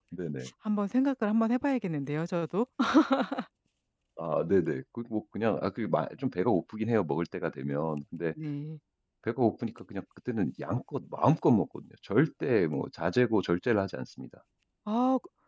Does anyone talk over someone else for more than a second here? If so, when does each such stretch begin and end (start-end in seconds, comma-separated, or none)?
none